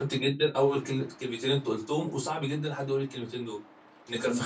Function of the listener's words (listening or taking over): listening